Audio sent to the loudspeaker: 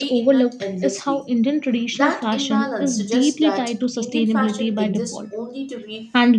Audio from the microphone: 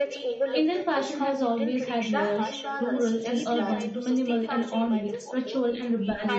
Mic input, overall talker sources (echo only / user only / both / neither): both